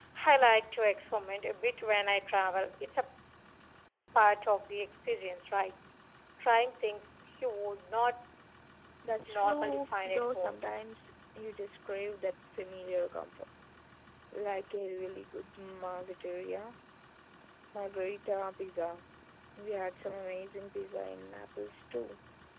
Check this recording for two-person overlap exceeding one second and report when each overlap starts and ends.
9.3-10.6

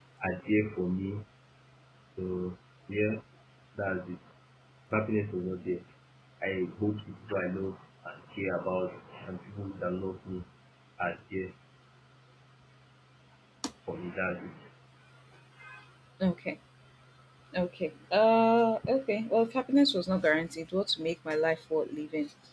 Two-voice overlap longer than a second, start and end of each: none

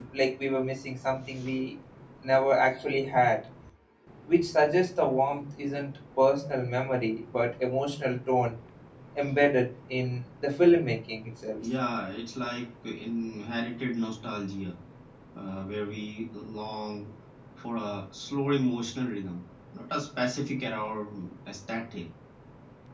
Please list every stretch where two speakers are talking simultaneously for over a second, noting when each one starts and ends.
none

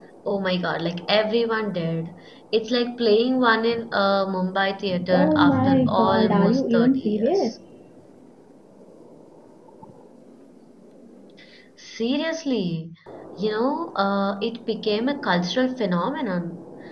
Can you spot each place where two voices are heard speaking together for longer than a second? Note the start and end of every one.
5.1-7.5

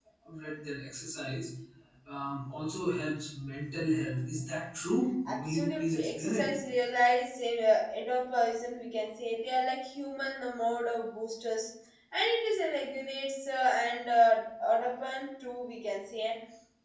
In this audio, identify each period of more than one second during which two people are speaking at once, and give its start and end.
5.2-6.5

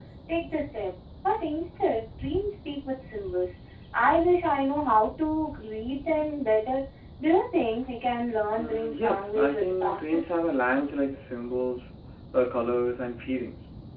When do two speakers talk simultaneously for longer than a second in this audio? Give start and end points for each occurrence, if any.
8.6-10.4

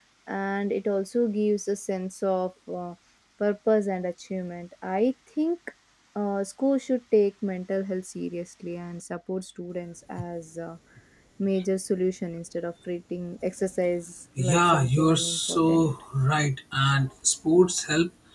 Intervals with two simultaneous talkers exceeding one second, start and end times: 14.4-15.9

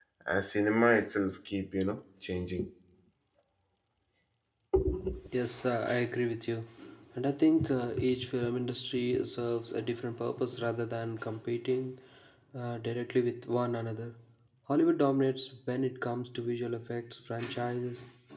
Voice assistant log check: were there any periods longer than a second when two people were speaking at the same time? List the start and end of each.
none

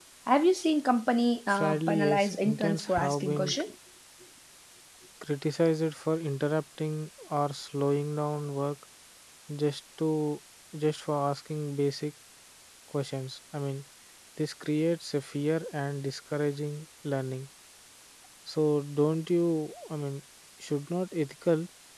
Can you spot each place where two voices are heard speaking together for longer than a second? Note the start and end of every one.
1.5-3.6

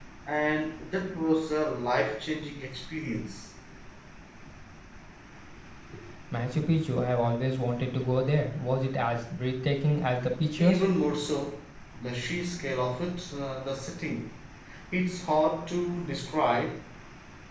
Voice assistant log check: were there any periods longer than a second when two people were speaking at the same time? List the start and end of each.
none

